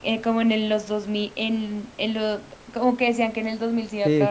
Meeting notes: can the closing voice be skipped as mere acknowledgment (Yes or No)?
No